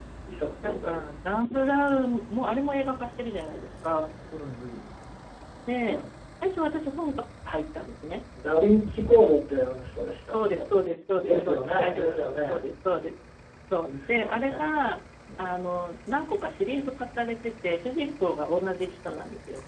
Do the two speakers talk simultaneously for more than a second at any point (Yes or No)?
Yes